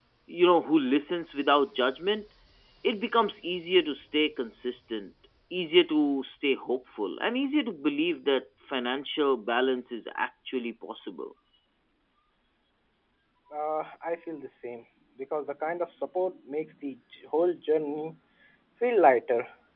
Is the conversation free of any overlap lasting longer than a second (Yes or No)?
Yes